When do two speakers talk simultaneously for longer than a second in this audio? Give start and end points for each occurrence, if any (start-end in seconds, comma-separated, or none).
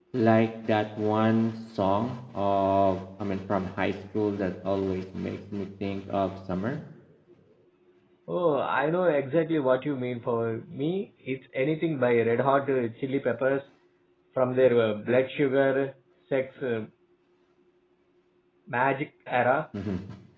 none